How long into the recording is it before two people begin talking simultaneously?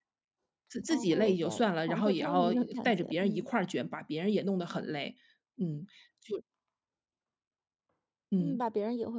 0.9 s

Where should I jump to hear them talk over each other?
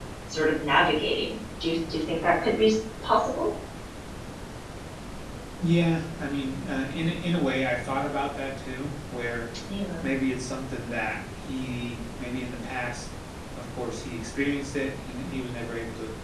none

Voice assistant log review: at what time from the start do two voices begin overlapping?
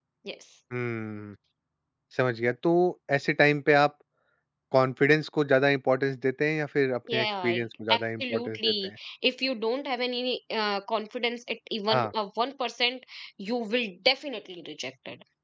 7.1 s

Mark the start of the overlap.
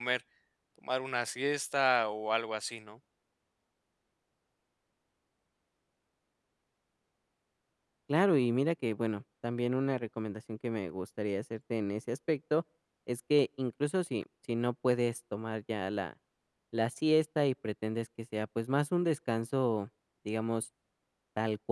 none

